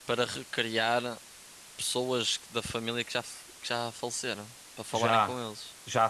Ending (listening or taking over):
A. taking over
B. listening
A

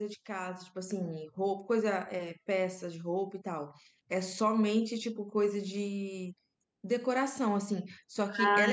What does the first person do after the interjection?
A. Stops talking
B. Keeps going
B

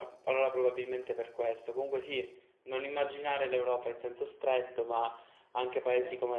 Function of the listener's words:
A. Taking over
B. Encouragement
B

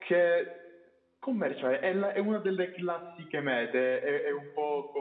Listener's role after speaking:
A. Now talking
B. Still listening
B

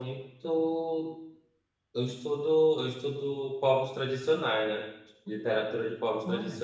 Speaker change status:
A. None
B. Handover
A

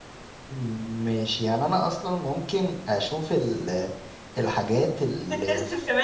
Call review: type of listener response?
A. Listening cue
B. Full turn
B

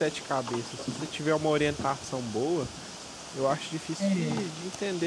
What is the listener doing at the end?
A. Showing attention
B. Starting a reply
A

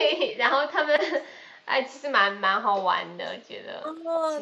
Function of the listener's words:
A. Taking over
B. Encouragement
A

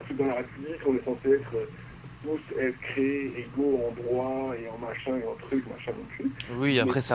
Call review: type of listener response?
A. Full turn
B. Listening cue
A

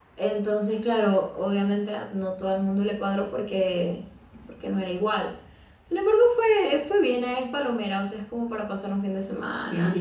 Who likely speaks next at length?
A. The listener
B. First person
A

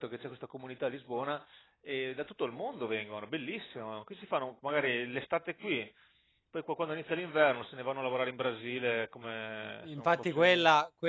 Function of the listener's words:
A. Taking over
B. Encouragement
A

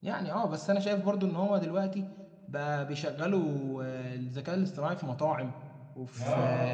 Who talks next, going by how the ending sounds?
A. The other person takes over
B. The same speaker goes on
B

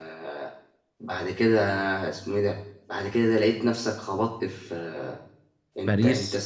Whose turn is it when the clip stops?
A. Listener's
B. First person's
B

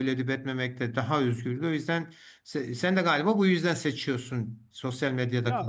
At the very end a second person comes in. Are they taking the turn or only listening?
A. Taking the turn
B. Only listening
A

